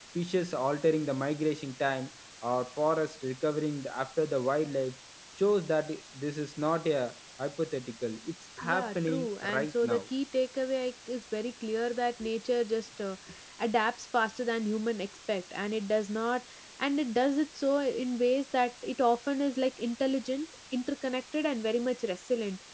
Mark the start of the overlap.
9 s

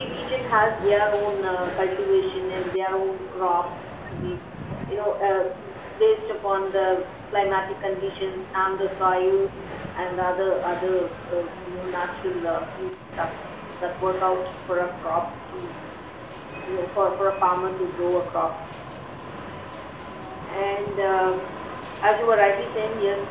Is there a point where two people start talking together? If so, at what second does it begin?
none

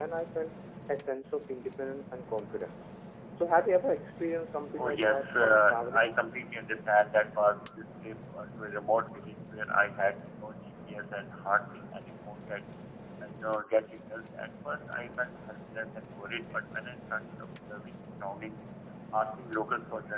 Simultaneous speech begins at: 5 s

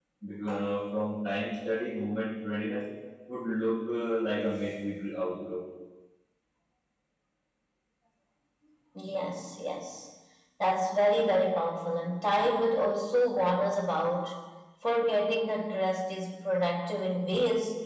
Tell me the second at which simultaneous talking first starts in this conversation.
none

